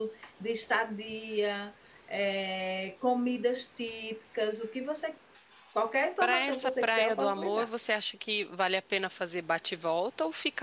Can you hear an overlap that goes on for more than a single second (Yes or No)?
Yes